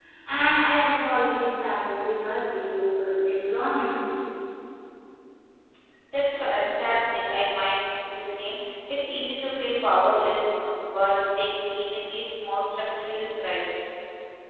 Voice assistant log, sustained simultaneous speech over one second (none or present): none